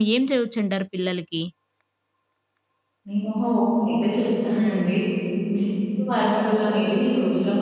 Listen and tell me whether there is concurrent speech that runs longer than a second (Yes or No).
No